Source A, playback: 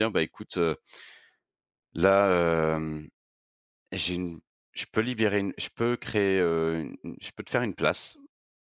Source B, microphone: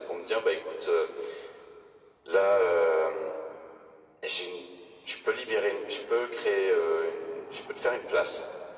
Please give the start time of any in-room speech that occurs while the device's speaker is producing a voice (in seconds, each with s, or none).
none